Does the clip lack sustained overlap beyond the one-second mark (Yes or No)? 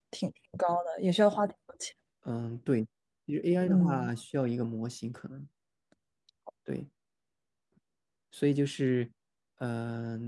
Yes